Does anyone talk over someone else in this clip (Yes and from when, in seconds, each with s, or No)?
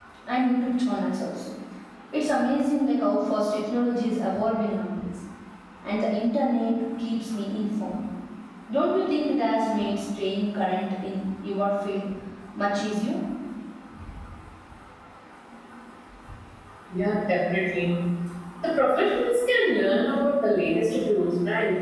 No